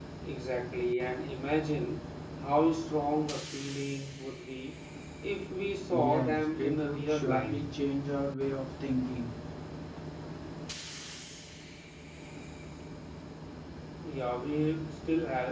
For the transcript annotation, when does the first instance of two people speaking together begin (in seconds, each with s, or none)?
5.9 s